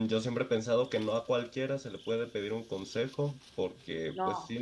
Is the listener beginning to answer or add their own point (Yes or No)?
No